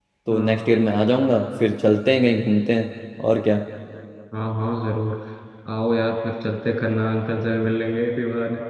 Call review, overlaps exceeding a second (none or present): none